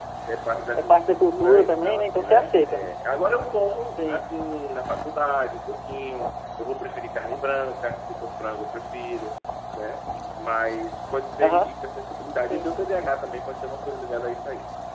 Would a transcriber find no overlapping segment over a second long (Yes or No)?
No